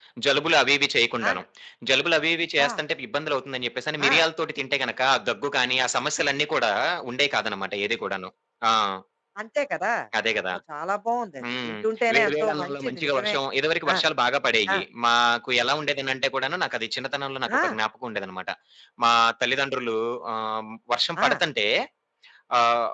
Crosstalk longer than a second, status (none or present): present